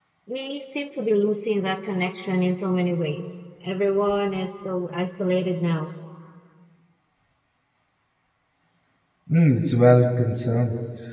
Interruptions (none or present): none